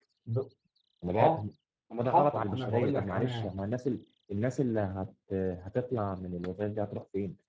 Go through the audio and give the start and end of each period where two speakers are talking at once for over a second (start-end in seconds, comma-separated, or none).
2.0-3.5